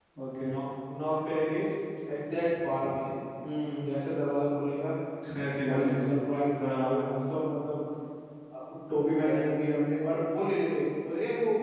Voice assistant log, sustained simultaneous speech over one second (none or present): none